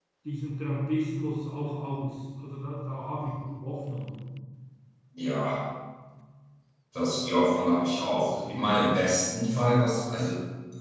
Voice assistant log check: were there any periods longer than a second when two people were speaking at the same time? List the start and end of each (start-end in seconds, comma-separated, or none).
none